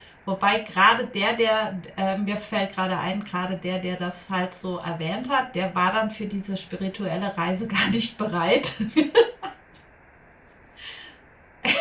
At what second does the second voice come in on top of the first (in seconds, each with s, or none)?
none